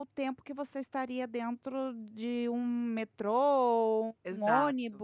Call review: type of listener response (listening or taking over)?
listening